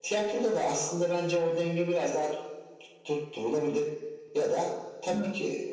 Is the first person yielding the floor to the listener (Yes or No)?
No